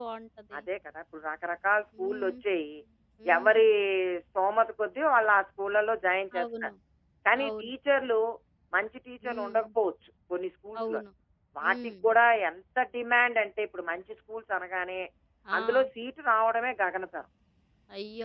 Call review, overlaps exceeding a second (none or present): none